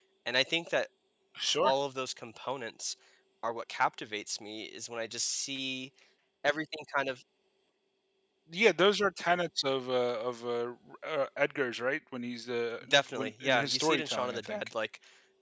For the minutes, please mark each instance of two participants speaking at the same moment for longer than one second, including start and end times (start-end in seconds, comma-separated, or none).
13.2-14.6